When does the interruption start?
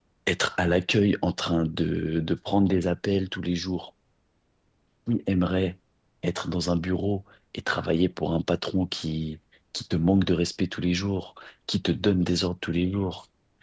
none

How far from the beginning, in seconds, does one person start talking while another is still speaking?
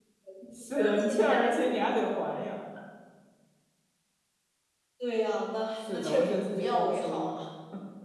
0.8 s

